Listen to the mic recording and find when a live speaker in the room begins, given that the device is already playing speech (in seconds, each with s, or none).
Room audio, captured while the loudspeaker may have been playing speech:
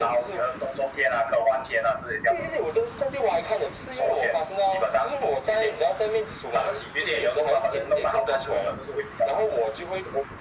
none